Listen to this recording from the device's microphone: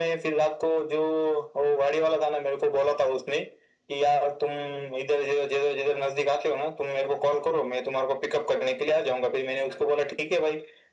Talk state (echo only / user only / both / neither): echo only